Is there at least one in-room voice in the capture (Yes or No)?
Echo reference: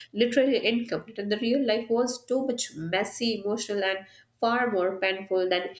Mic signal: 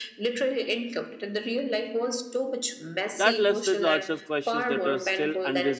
Yes